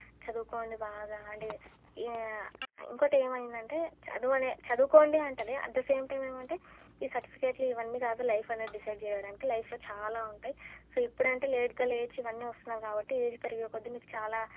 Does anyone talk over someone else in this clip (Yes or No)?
No